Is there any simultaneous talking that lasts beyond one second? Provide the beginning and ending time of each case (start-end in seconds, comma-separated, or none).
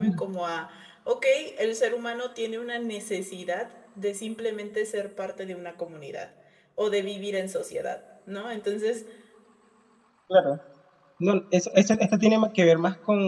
none